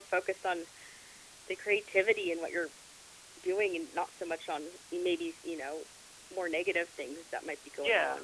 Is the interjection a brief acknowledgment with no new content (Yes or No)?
No